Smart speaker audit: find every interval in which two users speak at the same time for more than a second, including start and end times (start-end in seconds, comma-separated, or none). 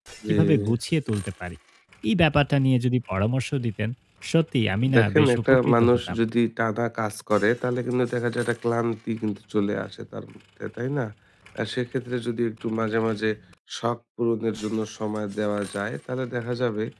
4.9-6.2